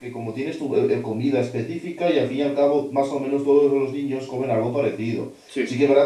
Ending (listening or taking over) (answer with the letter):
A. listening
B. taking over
A